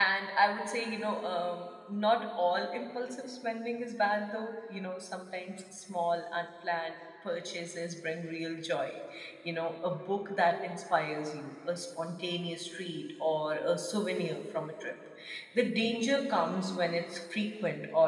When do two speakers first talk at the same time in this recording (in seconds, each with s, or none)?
none